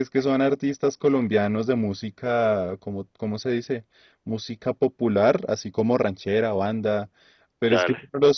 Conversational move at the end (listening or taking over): listening